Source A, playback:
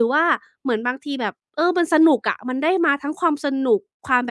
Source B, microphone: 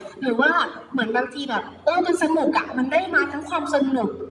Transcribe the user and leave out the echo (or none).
none